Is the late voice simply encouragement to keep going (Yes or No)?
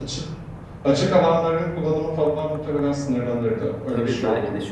No